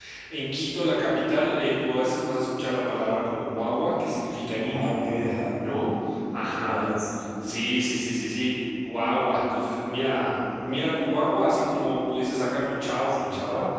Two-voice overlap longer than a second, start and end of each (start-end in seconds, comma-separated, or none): none